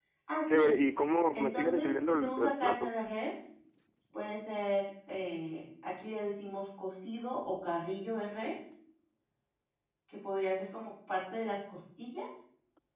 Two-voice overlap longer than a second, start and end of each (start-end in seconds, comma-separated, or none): 1.3-2.9